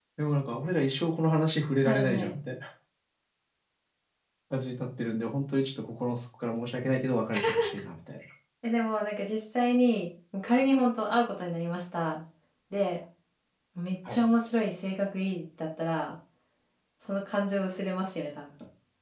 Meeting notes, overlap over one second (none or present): none